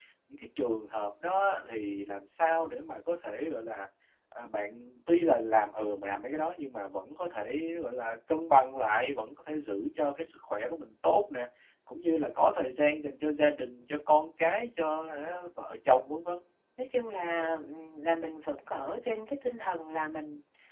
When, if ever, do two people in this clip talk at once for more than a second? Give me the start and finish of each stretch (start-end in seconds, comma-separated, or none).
none